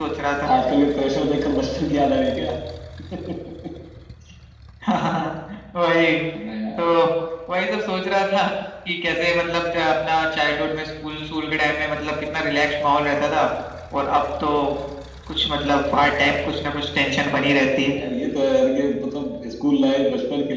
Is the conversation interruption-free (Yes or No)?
Yes